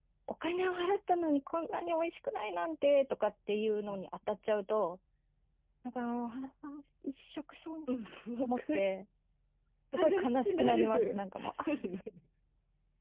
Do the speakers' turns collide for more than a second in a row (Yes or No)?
Yes